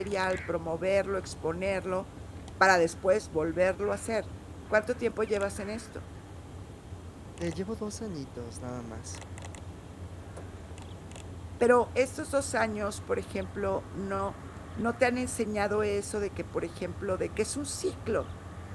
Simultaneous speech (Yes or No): No